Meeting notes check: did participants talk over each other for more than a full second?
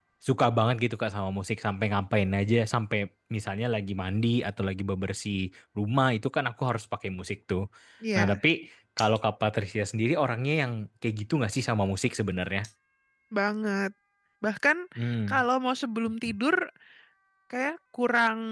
No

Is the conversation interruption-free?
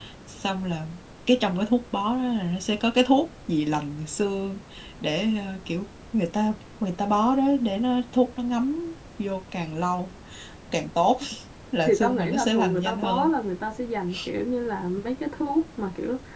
No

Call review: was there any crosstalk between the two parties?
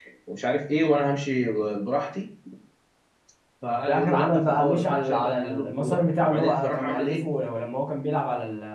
Yes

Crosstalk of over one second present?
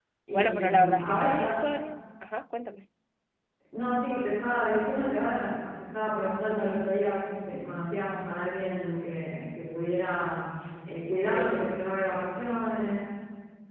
Yes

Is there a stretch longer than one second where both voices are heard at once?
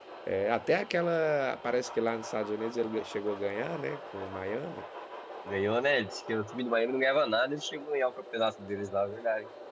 No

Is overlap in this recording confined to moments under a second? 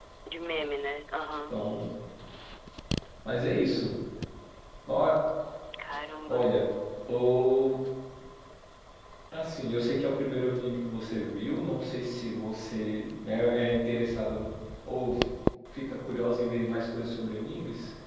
Yes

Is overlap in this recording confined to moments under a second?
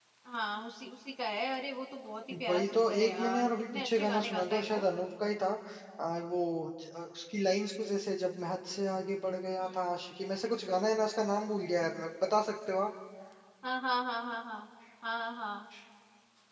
No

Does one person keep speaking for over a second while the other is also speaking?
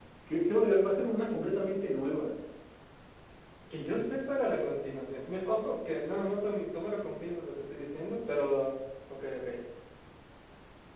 No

